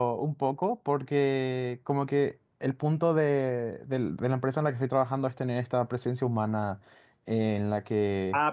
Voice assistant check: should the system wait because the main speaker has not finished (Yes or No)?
No